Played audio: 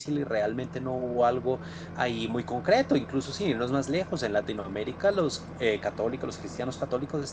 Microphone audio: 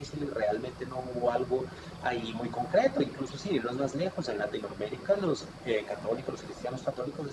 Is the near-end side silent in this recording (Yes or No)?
Yes